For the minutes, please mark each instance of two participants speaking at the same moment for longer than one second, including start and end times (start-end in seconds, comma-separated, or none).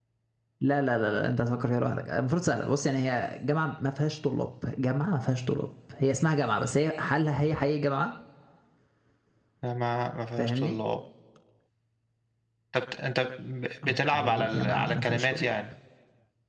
13.8-15.5